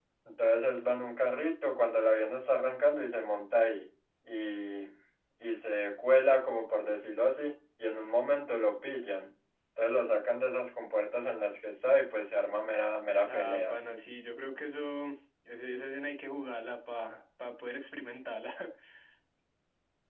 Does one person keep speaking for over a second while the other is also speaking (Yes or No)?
No